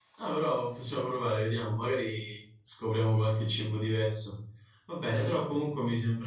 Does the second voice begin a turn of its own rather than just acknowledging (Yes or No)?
No